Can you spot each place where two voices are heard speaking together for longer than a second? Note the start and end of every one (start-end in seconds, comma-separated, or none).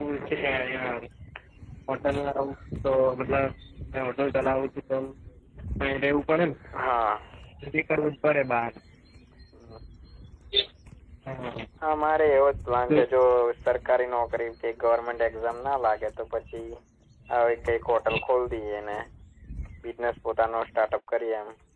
none